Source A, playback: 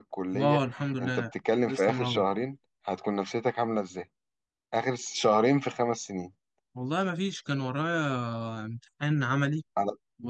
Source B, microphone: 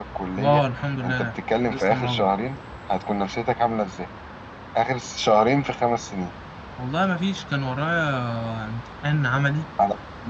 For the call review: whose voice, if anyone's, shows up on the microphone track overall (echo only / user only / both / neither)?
echo only